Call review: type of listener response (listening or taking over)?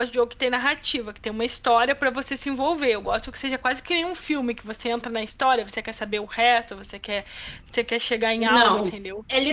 taking over